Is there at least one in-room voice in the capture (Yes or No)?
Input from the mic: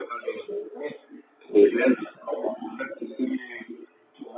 No